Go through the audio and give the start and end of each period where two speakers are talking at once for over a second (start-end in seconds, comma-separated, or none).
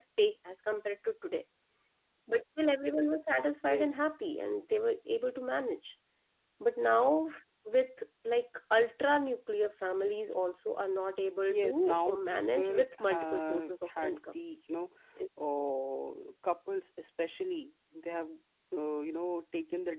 11.5-14.4